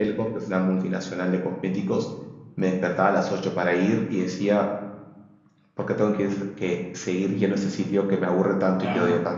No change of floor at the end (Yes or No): Yes